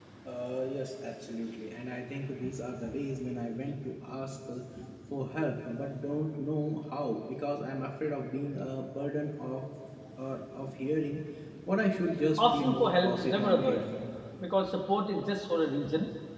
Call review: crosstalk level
present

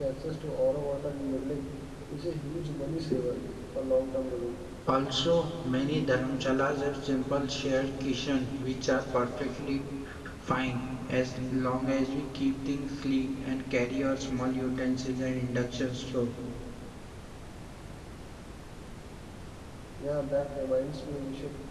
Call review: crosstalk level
none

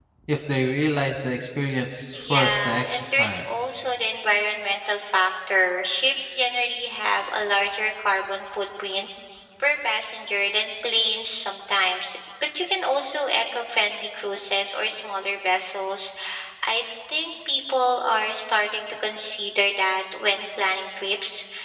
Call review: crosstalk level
present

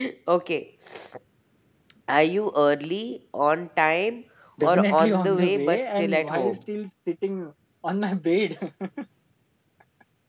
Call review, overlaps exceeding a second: present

